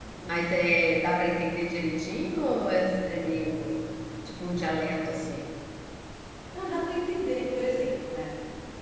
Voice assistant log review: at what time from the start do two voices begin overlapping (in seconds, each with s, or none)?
none